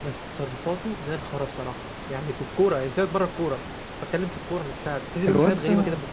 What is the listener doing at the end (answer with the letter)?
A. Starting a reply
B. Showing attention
A